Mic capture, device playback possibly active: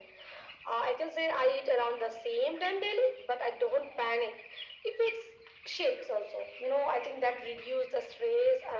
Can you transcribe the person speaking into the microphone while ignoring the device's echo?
none

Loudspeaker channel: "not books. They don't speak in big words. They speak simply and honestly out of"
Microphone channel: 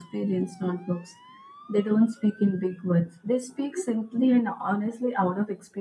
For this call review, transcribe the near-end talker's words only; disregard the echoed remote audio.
none

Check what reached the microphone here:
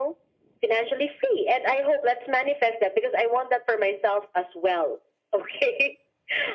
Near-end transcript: none

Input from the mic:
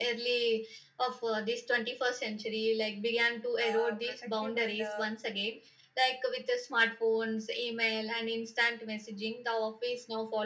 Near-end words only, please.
uh, protective and uh,

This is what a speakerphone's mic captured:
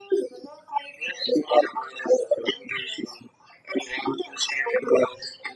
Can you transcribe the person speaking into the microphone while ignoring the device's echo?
none

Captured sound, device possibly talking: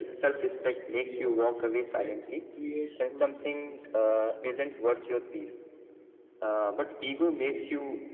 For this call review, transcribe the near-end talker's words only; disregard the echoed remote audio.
uh, superiority that creates a distance with the peoples

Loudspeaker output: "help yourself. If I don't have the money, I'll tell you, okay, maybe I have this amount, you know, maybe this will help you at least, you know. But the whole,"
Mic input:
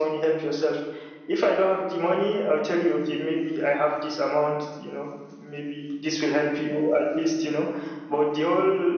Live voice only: none

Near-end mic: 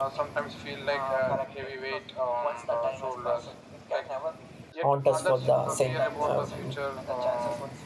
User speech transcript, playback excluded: haunt us for the cent- um,

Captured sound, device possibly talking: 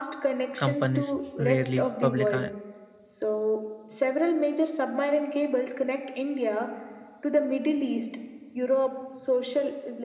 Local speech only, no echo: companies rarely public- uh,

